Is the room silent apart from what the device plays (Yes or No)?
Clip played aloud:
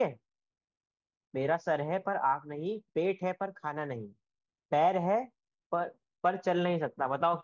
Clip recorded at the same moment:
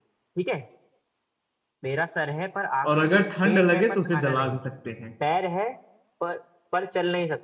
No